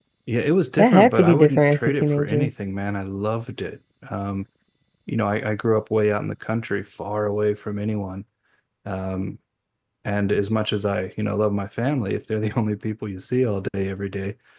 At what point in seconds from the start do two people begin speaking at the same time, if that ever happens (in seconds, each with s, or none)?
0.8 s